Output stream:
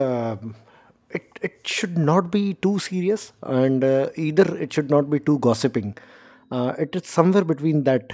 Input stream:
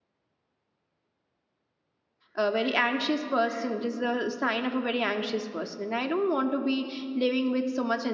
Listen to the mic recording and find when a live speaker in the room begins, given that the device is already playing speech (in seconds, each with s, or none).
2.4 s